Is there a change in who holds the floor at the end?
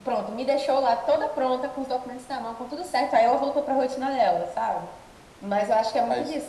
No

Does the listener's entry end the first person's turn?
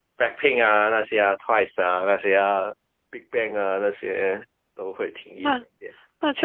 Yes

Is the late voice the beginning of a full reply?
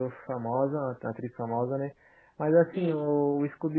No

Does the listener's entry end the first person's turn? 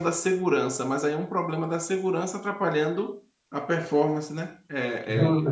No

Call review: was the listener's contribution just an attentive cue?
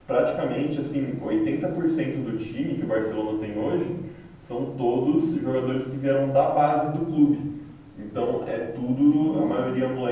Yes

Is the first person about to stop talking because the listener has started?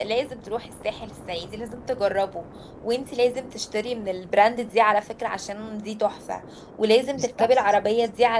No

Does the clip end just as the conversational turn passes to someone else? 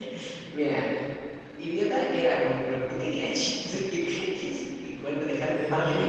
No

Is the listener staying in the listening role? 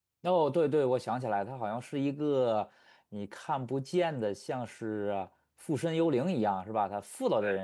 Yes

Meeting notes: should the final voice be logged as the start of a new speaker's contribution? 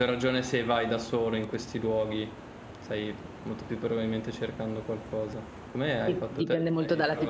Yes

